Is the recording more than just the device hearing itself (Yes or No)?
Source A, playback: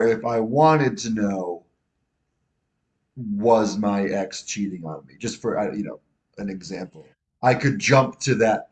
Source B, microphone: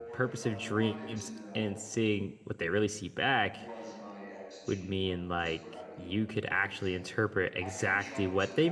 Yes